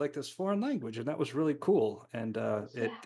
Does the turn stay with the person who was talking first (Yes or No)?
Yes